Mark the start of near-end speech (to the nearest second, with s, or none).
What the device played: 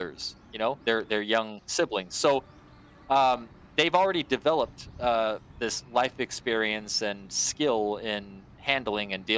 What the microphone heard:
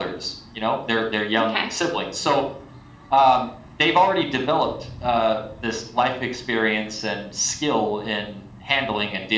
1 s